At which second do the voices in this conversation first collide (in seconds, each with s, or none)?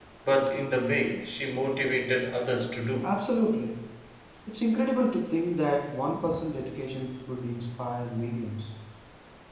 none